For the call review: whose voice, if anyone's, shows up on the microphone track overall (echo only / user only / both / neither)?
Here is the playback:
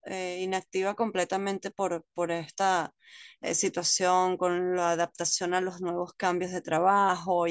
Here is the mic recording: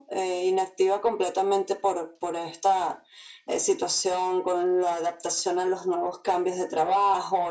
echo only